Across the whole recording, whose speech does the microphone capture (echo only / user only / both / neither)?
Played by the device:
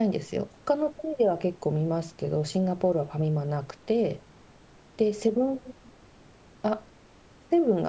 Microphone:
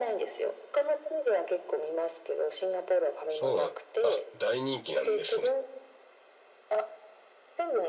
both